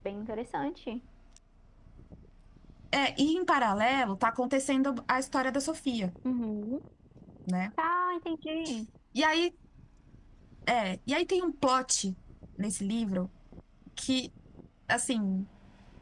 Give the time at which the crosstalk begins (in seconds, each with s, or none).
none